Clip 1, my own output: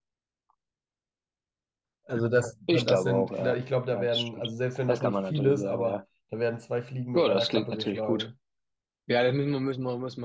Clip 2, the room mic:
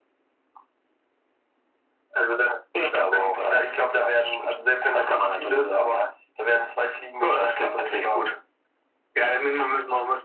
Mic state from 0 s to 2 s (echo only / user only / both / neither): neither